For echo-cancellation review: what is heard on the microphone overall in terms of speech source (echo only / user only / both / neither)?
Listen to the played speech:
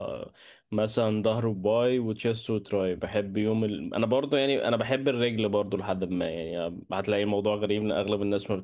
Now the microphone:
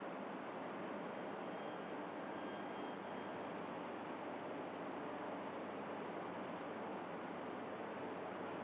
neither